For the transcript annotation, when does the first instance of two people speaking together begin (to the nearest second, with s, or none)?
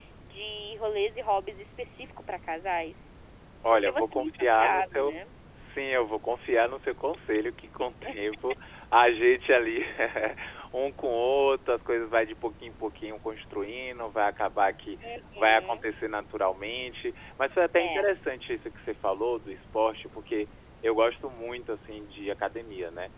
4 s